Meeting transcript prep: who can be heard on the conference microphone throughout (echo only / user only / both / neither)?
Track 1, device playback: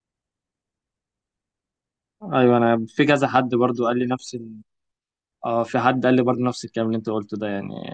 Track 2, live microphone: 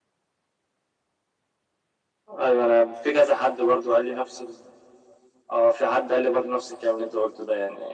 echo only